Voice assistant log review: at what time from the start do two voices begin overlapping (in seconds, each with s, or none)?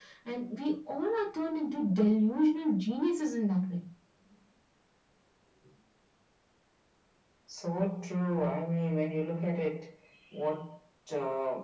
none